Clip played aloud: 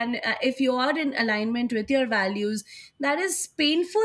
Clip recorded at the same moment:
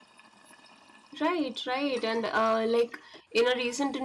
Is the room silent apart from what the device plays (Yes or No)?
No